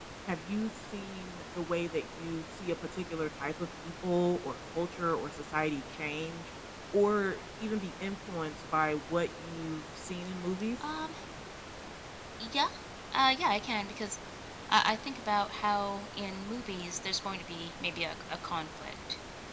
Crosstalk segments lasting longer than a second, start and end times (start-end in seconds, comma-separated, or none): none